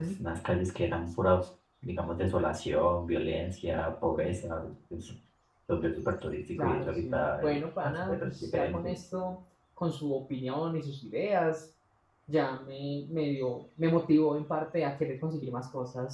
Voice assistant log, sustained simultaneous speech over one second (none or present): present